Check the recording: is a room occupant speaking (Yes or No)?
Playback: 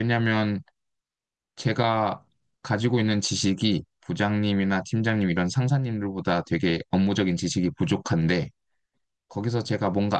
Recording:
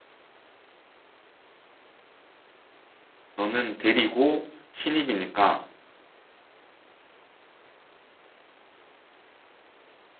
Yes